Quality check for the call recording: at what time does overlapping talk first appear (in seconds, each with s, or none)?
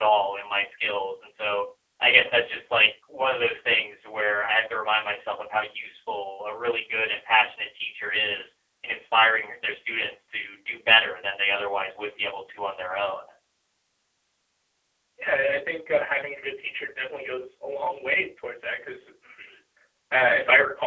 none